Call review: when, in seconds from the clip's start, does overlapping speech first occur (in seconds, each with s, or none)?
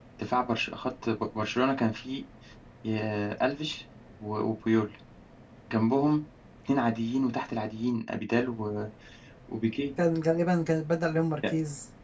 none